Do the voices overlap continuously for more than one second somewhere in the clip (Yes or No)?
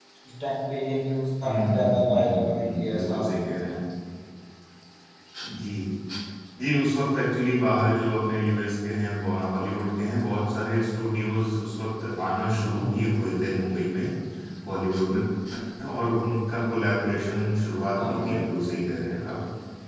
Yes